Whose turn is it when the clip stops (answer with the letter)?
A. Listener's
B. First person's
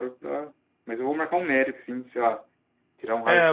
A